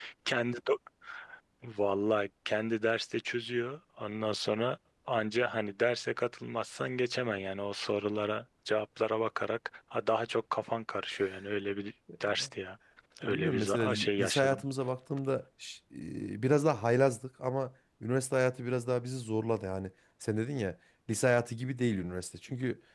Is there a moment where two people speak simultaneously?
Yes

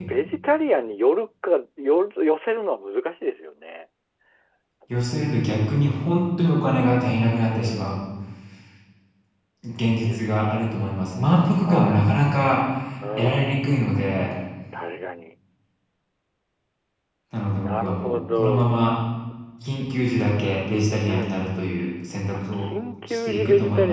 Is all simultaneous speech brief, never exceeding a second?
No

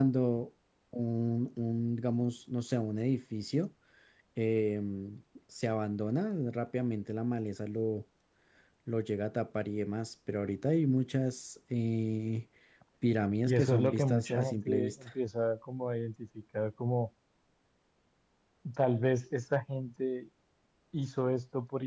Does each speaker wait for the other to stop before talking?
No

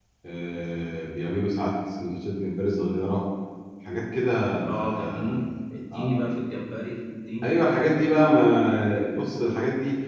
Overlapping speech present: Yes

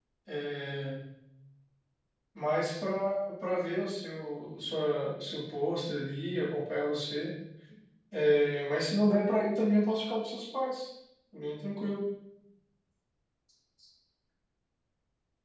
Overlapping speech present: No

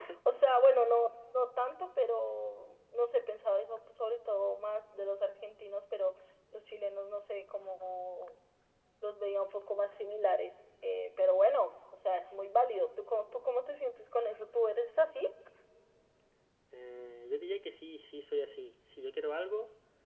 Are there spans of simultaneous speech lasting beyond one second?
No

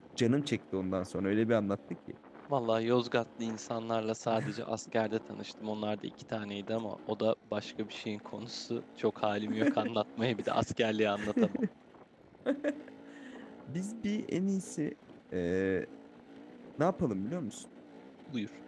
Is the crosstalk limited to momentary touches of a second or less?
Yes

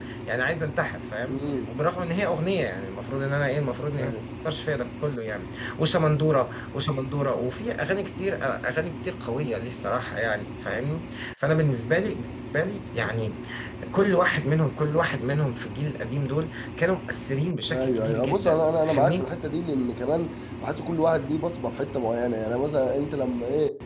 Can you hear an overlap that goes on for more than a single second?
Yes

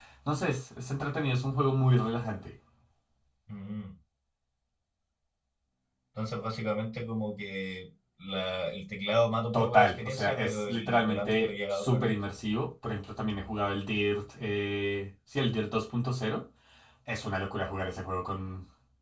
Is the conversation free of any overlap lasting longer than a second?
No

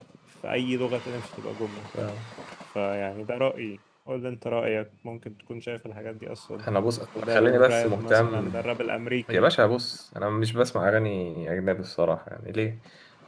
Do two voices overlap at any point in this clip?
Yes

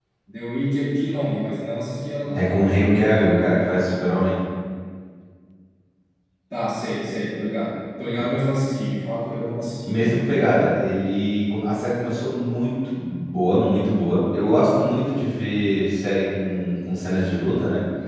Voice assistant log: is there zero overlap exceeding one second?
Yes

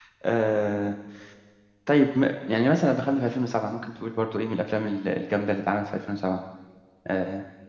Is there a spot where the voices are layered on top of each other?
No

